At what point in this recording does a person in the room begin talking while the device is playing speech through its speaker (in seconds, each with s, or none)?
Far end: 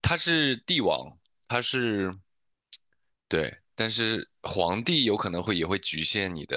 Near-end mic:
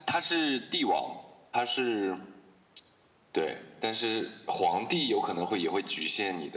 none